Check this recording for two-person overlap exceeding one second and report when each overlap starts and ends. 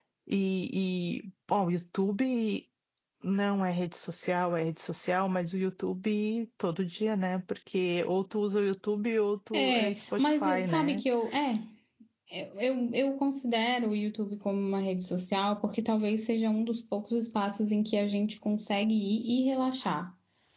9.5-11.0

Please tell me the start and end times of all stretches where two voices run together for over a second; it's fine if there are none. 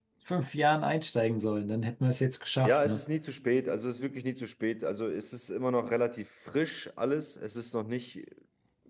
none

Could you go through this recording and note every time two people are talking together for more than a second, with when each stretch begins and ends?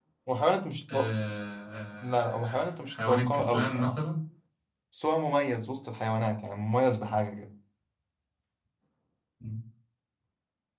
2.0-3.9

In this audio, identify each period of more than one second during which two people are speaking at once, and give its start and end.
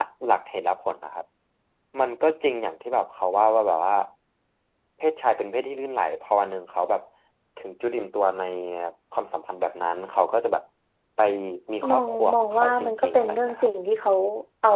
11.9-13.7

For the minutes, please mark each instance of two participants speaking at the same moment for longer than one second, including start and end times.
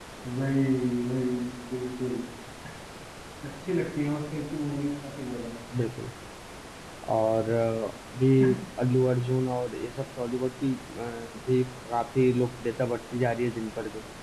none

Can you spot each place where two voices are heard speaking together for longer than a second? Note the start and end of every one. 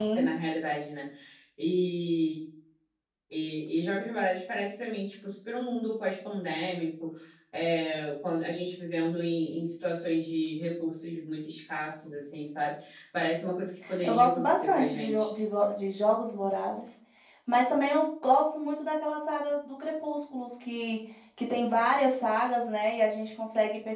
14.0-15.3

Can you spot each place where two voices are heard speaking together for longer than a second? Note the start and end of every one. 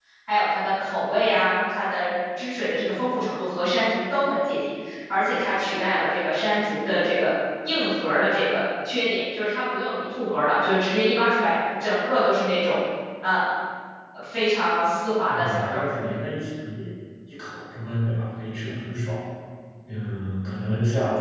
none

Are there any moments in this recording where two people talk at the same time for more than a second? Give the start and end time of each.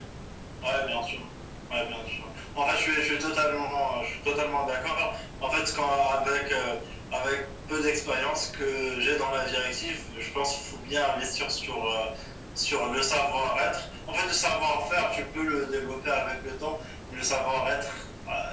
none

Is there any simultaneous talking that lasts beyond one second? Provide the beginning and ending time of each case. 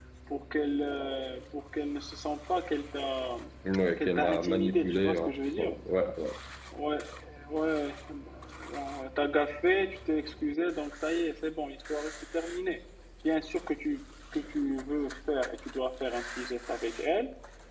4.0-5.7

